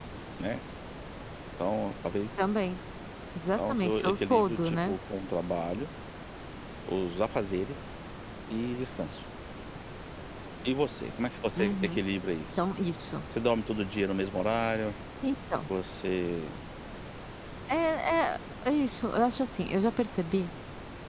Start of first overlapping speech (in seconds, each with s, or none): 3.6 s